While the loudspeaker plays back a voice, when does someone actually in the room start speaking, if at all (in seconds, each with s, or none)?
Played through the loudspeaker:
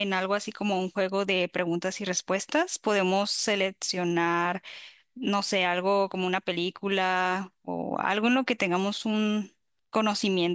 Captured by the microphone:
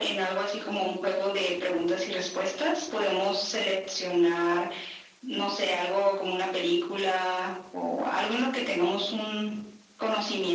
none